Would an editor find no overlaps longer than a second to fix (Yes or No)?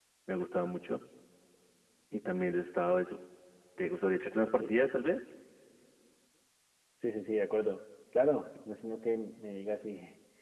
Yes